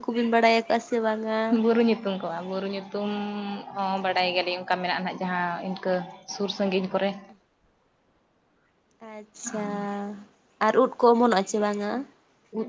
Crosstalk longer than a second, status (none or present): none